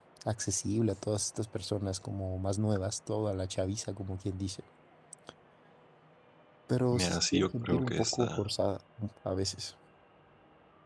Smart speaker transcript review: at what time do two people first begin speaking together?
6.9 s

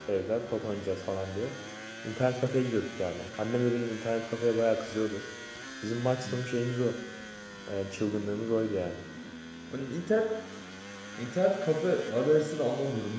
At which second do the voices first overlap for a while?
none

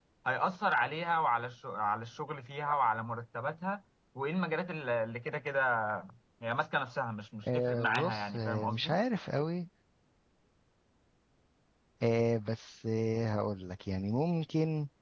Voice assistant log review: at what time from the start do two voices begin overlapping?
7.5 s

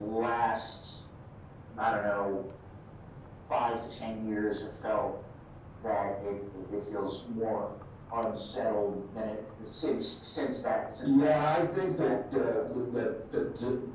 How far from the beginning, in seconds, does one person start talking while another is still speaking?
11.0 s

